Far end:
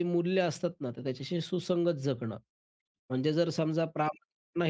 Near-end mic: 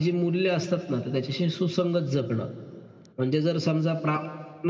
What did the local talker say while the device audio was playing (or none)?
none